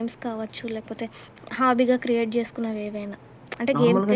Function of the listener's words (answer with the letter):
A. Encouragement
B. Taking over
B